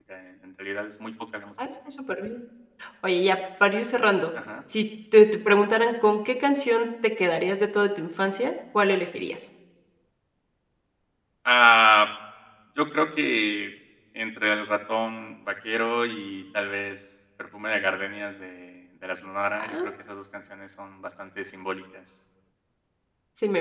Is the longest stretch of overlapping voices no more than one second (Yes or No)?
Yes